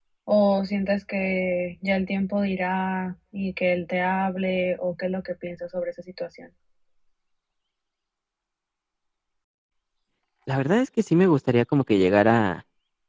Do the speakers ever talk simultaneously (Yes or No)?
No